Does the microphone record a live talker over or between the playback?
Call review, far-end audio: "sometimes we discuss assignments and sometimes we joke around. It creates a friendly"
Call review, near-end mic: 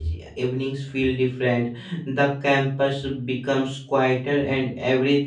Yes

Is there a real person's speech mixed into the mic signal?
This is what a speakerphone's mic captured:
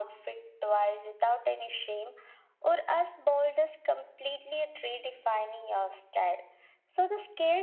No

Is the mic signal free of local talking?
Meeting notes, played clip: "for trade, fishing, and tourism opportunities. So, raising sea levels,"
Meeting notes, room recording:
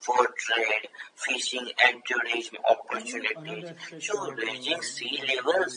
No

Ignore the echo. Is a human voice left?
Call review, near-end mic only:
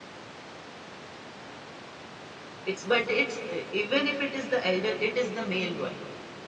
Yes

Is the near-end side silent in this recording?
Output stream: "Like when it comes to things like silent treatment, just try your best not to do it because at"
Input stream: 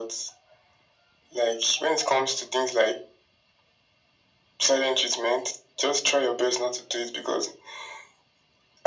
Yes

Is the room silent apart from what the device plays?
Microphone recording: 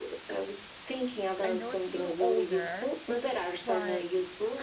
No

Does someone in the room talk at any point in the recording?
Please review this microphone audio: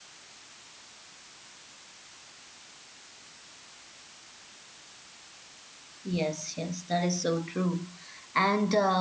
Yes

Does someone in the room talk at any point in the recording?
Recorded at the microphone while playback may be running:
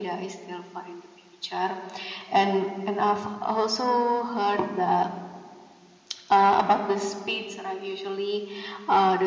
No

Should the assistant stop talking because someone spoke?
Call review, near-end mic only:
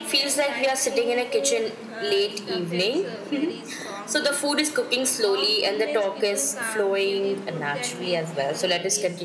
Yes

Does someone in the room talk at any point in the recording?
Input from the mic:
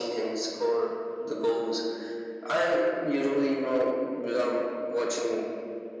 No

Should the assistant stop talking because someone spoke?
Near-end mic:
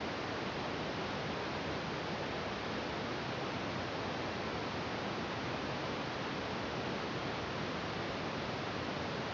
No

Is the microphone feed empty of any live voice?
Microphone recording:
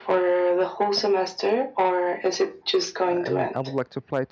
No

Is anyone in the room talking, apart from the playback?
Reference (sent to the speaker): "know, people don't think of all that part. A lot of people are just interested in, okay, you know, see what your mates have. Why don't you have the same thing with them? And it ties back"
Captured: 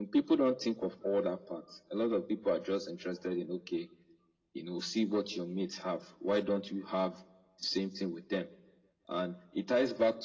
No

